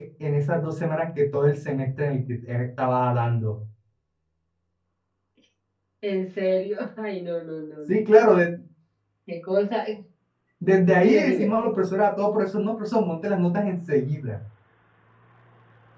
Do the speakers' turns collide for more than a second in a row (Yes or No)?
No